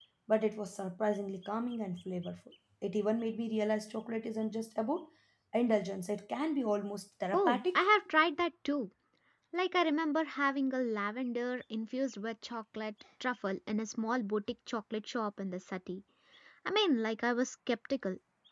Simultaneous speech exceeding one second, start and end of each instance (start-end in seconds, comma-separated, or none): none